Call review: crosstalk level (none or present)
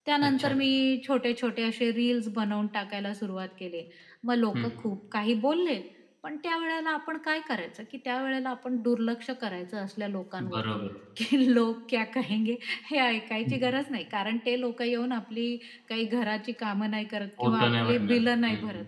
present